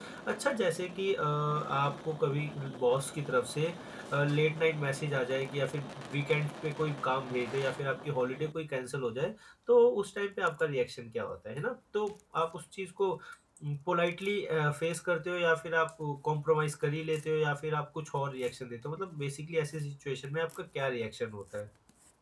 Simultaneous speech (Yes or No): No